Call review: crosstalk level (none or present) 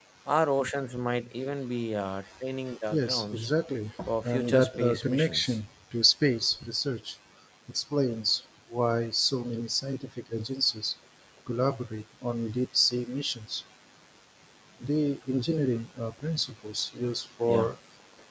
present